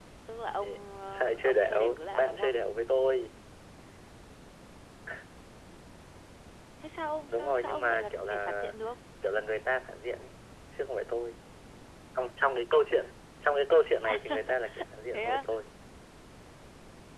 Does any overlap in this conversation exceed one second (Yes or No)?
Yes